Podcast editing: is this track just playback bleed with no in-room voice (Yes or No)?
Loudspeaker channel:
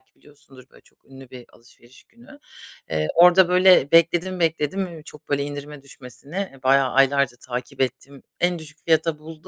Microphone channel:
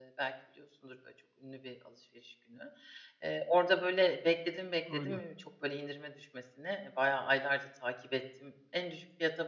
No